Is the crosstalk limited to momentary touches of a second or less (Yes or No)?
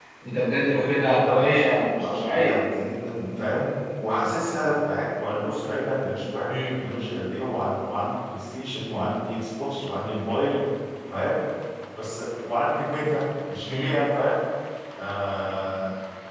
No